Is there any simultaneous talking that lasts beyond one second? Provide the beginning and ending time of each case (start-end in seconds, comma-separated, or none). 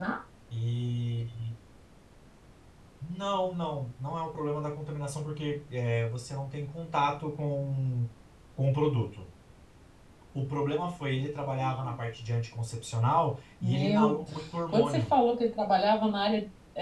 13.6-15.1